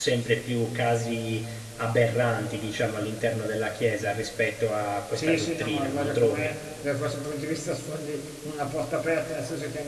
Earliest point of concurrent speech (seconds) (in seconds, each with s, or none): 5.2 s